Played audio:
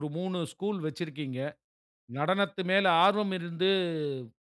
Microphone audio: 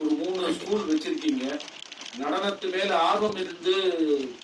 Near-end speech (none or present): present